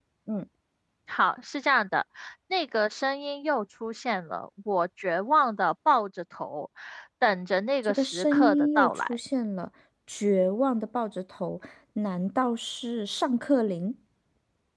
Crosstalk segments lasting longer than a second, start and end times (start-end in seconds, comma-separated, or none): 7.8-9.2